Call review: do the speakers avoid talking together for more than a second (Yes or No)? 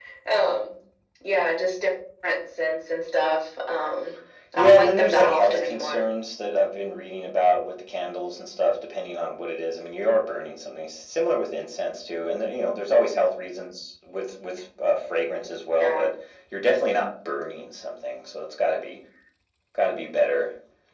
No